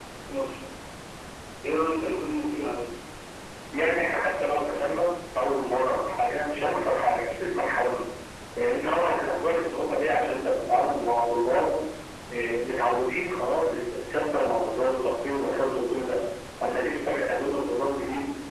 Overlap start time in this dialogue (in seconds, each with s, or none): none